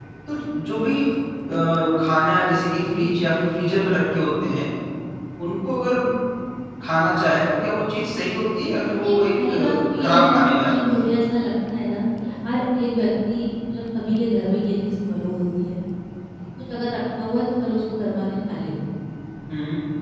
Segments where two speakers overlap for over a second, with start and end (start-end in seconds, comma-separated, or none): 9.0-11.0